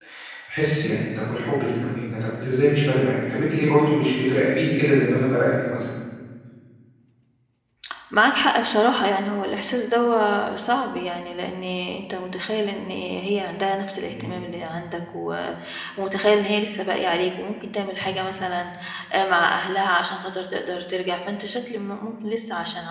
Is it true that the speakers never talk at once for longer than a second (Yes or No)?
Yes